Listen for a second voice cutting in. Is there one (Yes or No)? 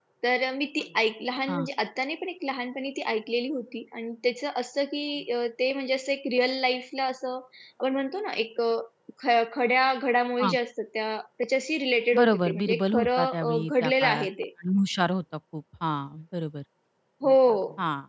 Yes